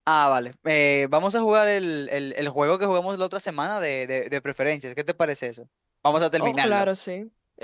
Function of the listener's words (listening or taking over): taking over